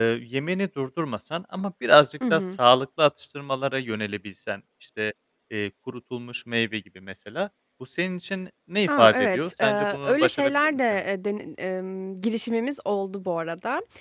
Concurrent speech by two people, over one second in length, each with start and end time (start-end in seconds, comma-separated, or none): 8.9-11.0